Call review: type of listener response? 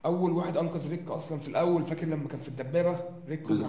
taking over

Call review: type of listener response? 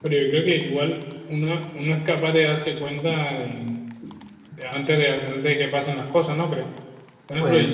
listening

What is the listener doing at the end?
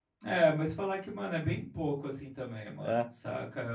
listening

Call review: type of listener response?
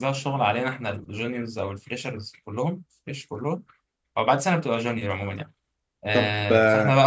listening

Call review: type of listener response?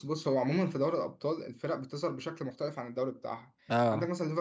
listening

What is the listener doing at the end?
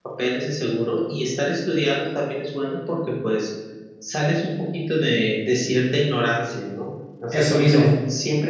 listening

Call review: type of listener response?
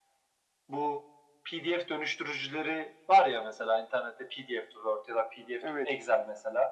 listening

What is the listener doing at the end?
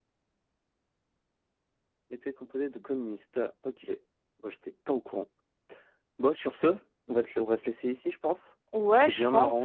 taking over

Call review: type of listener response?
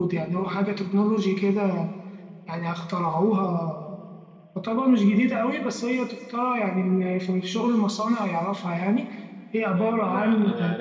taking over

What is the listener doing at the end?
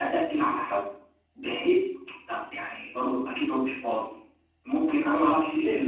listening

